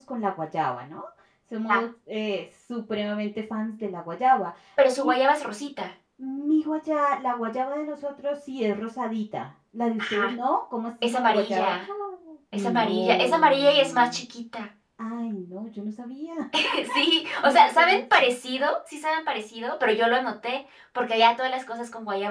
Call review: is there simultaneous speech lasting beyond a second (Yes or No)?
Yes